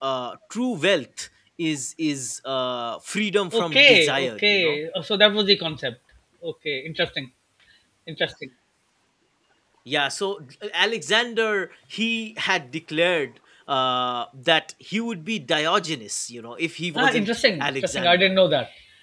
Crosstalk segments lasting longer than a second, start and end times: 3.5-4.8, 17.0-18.3

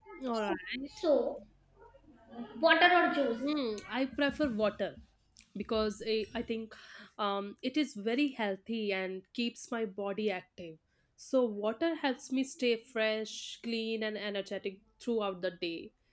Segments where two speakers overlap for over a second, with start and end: none

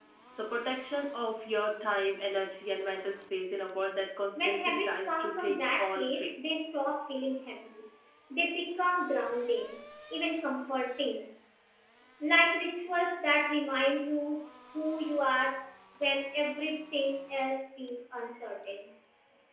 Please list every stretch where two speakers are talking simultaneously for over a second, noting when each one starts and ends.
4.4-6.3

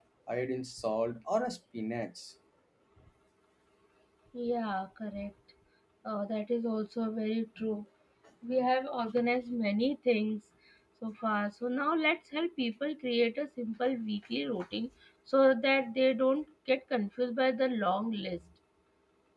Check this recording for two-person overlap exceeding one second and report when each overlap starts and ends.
none

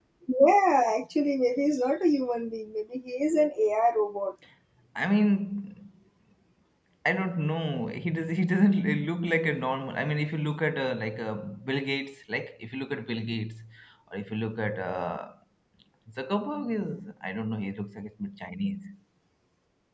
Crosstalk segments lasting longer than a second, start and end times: none

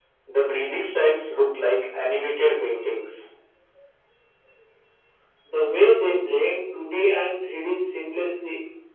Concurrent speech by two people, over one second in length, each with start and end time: none

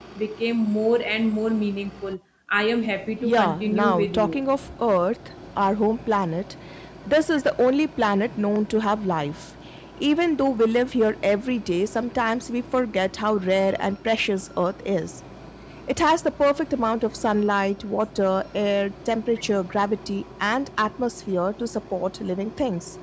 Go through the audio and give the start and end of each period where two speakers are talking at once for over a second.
3.2-4.4

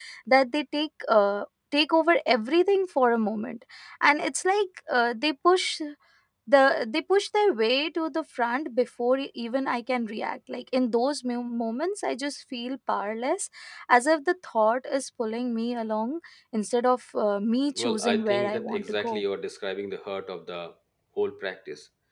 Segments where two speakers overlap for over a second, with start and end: 17.8-19.1

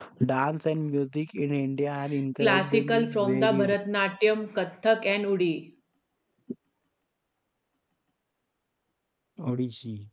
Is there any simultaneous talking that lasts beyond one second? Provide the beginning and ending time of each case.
2.4-3.8

